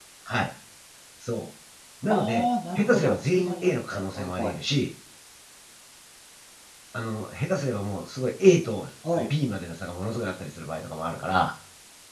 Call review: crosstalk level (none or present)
present